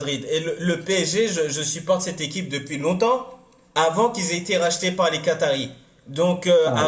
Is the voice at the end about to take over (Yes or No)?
No